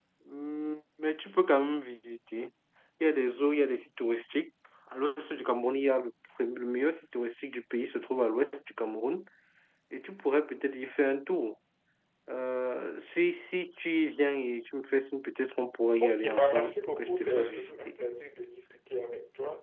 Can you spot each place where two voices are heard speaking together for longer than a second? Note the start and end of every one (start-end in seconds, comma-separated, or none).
16.0-17.8